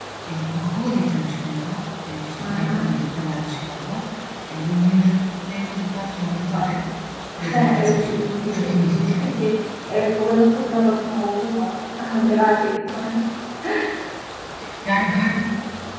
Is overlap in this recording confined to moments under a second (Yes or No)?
No